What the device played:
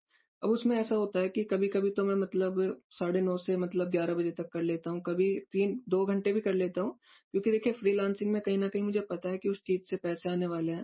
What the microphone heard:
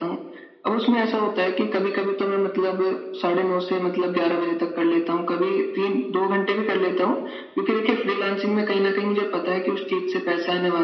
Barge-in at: none

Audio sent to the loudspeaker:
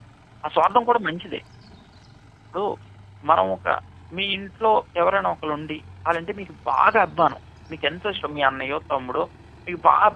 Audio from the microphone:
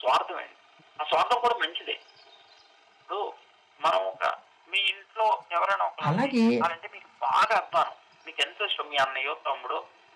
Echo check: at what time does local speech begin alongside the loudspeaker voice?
6 s

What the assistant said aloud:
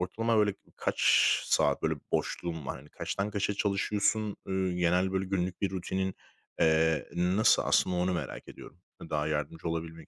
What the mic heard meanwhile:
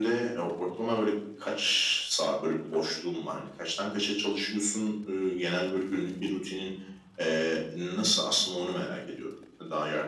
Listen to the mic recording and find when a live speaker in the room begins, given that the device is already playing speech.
none

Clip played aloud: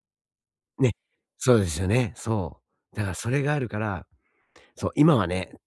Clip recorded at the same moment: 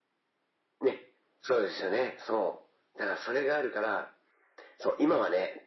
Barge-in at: none

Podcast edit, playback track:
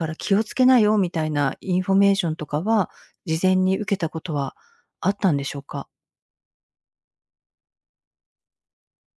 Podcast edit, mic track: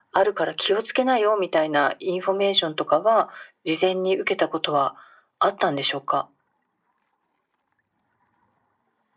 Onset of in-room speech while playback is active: none

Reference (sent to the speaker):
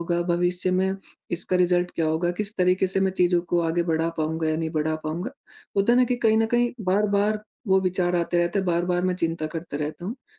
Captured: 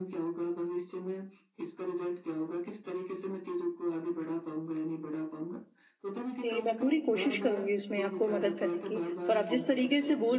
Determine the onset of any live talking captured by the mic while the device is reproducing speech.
6 s

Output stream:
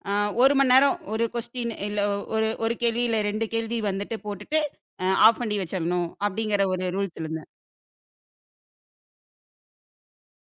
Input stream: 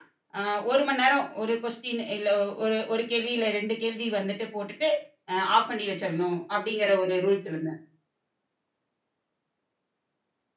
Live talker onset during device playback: none

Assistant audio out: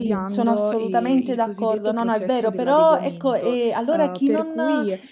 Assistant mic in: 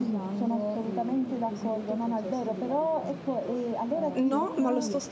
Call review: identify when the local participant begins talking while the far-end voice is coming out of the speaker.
4 s

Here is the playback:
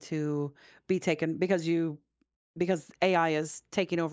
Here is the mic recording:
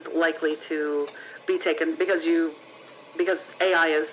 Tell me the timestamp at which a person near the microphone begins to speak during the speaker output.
none

